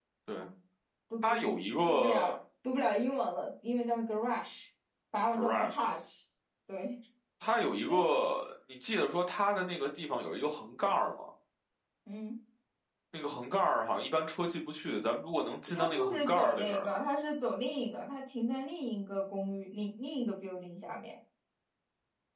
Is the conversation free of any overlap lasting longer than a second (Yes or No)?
No